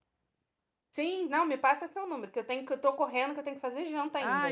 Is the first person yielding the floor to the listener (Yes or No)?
Yes